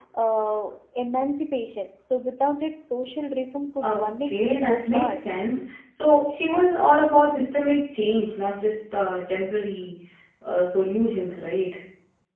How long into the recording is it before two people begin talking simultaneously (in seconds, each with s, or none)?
3.8 s